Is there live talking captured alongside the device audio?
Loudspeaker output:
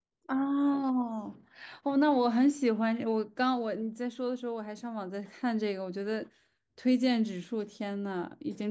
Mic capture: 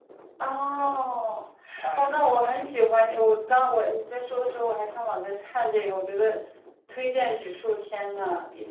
Yes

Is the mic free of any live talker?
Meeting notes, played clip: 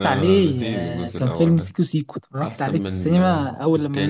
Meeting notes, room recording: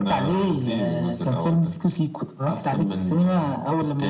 Yes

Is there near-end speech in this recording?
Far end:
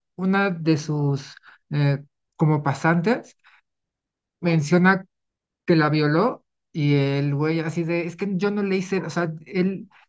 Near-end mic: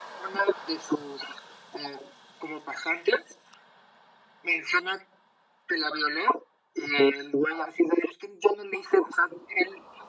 No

